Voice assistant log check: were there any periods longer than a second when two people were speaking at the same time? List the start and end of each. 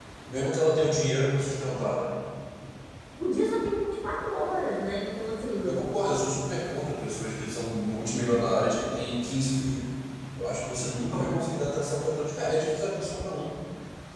none

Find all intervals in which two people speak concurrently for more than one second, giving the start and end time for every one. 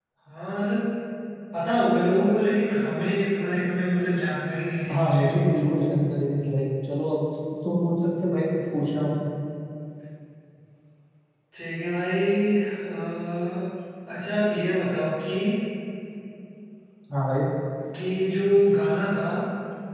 none

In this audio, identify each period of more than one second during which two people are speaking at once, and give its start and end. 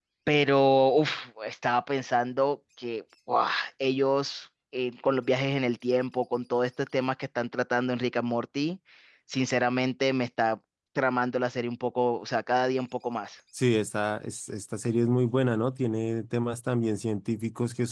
none

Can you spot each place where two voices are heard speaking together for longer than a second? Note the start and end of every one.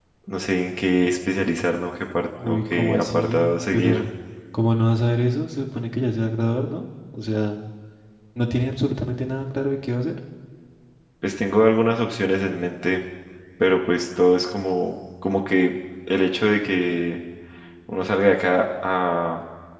2.5-4.1

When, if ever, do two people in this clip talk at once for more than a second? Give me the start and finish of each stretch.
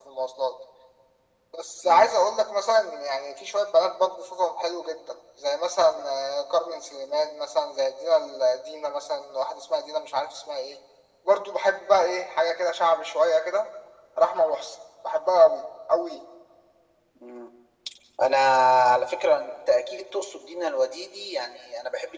none

